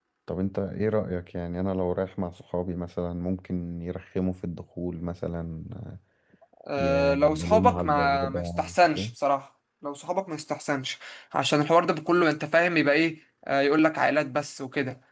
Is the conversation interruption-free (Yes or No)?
No